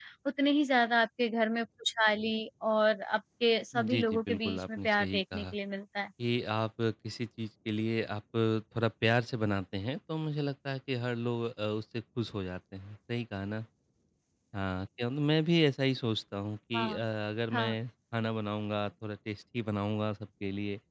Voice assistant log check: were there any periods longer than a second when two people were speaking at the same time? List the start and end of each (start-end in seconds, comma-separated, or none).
3.9-5.5